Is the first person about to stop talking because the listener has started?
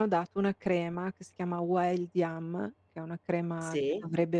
No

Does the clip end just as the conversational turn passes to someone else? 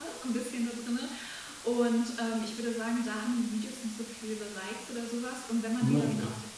No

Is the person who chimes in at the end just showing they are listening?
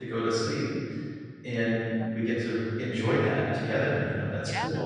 No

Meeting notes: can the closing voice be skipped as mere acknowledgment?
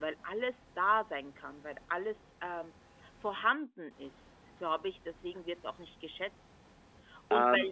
Yes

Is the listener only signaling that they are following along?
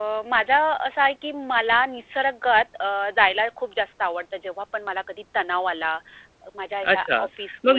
No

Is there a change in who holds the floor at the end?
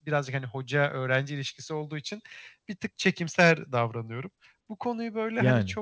No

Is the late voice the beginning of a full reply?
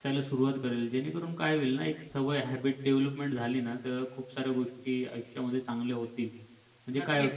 Yes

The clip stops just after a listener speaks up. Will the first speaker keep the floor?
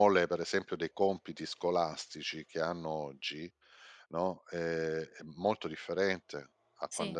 Yes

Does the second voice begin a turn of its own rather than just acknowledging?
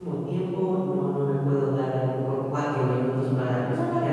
Yes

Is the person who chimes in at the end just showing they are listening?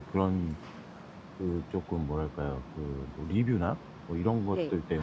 Yes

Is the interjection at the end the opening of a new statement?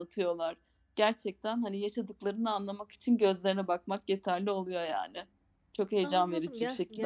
Yes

